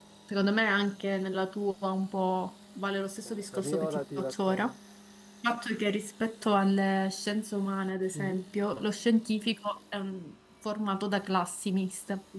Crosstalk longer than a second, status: present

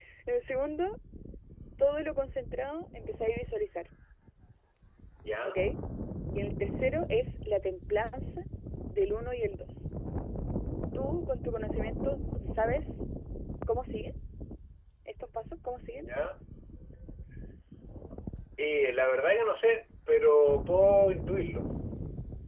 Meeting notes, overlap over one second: none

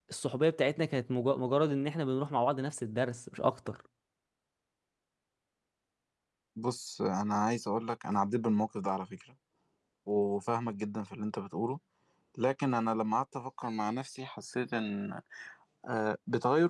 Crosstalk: none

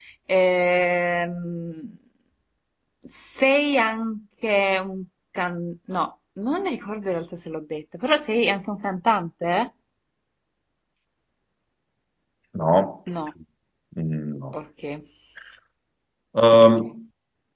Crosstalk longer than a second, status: none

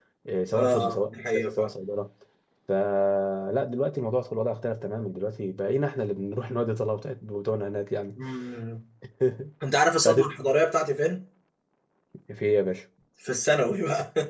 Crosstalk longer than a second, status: present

